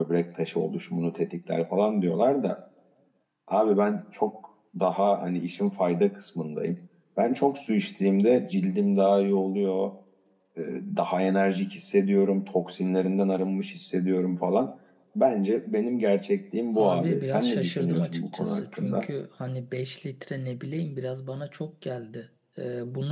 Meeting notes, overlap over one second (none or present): present